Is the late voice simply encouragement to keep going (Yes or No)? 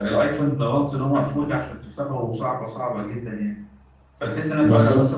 Yes